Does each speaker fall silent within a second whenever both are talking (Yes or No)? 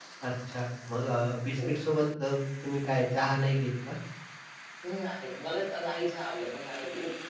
Yes